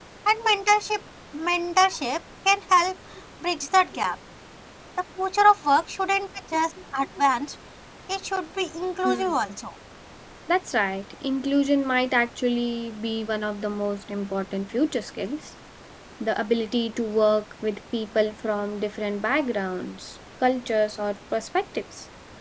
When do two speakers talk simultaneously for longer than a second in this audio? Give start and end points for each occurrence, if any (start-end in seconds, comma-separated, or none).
none